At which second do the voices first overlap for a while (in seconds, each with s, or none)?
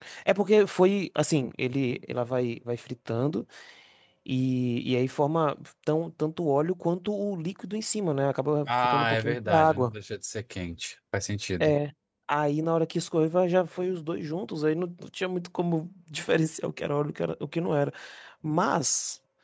8.7 s